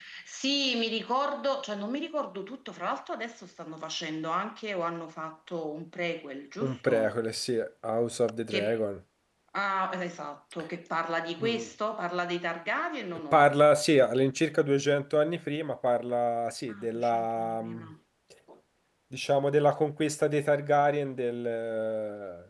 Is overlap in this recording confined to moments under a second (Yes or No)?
No